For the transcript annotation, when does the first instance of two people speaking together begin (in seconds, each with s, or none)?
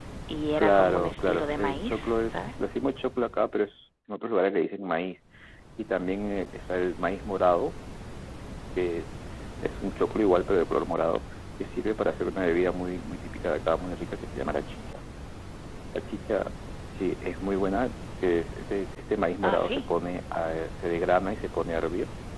0.6 s